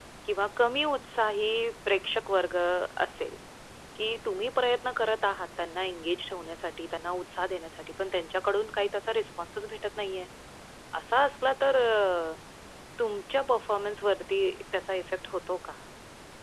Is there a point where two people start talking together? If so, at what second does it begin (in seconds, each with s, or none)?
none